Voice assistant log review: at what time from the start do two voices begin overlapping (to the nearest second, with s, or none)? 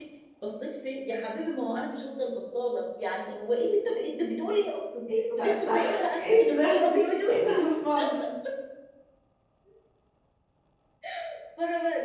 5 s